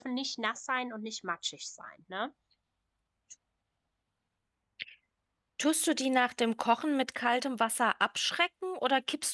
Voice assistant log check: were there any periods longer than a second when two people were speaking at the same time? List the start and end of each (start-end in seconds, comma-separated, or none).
none